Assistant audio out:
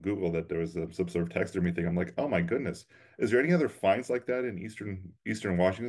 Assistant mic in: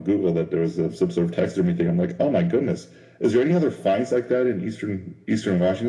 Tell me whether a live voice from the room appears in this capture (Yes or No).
No